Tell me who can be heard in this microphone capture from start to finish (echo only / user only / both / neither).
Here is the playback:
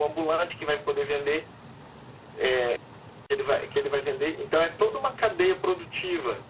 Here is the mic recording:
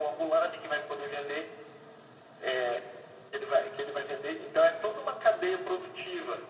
echo only